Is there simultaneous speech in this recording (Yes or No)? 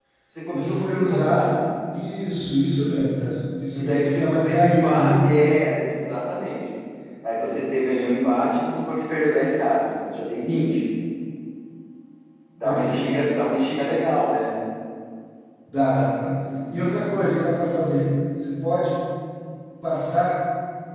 Yes